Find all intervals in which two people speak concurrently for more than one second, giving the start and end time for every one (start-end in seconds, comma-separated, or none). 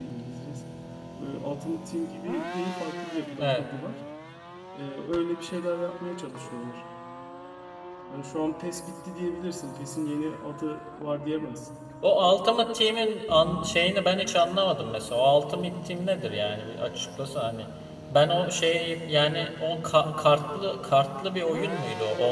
none